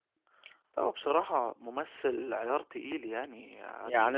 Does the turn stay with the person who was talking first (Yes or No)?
No